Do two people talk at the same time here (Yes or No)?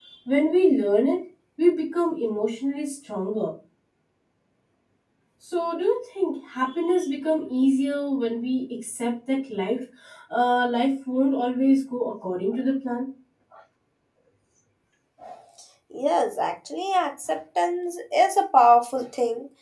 No